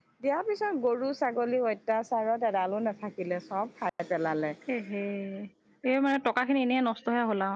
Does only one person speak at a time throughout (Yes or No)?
Yes